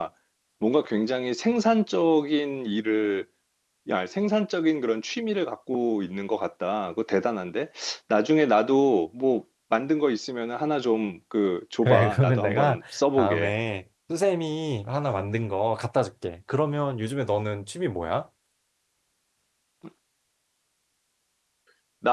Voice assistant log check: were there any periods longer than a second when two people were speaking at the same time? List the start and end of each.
11.8-13.5

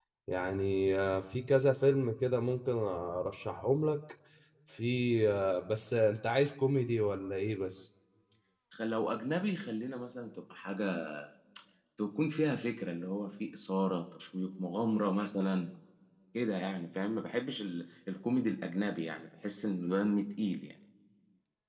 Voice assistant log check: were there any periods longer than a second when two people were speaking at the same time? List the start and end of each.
none

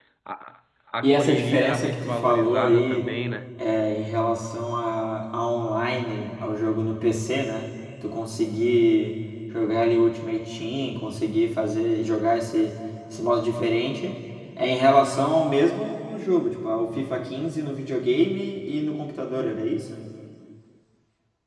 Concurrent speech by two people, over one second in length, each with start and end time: 1.0-3.1

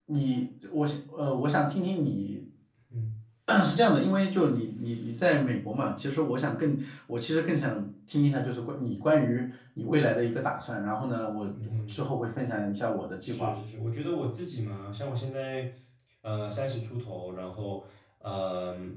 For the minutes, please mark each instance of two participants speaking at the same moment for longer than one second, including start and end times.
none

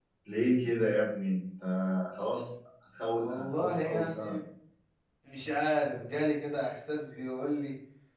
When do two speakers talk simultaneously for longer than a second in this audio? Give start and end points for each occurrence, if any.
3.1-4.3

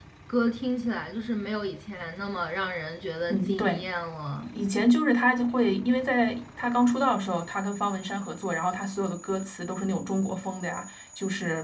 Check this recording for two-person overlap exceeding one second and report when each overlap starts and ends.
none

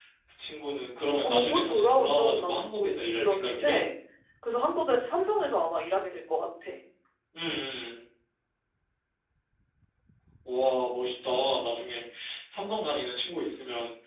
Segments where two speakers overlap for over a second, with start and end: 1.2-3.8

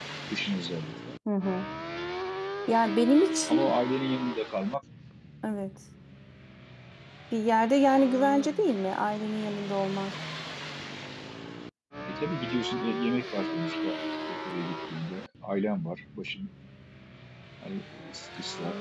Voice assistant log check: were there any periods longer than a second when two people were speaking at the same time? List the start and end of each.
none

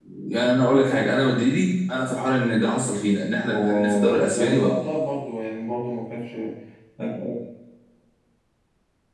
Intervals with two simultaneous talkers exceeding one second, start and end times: 3.4-4.7

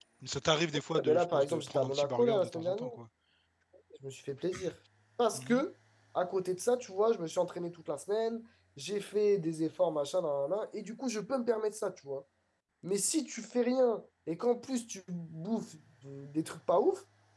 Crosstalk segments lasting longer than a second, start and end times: 1.0-2.9

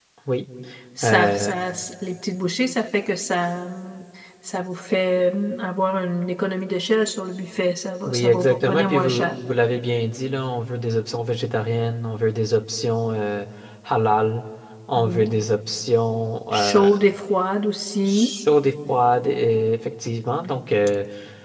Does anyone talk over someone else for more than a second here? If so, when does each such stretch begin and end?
8.0-9.4

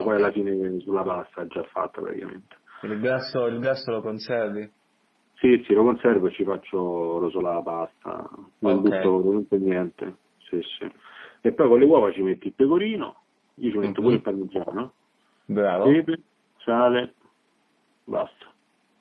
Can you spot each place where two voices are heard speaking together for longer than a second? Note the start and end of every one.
none

